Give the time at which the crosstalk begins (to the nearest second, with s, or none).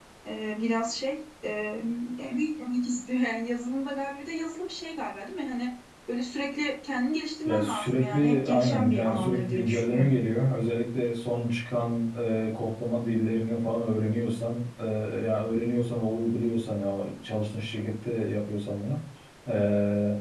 7 s